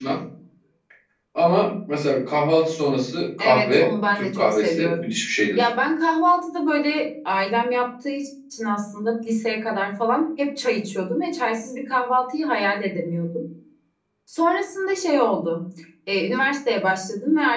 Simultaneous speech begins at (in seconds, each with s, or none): 3.4 s